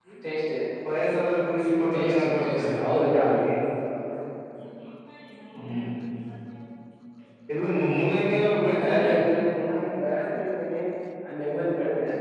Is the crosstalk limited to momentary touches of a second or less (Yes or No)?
No